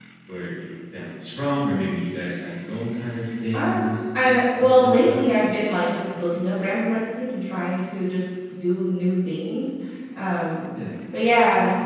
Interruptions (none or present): present